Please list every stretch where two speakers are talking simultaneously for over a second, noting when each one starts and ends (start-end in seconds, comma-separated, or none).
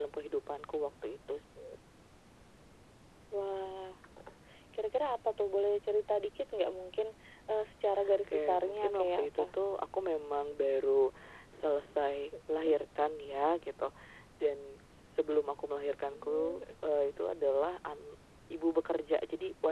8.3-9.6